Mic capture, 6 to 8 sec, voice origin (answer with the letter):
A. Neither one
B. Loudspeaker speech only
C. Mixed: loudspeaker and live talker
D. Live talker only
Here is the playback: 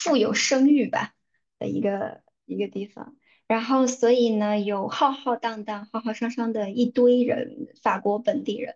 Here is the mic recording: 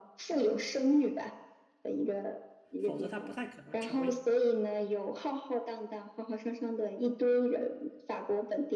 B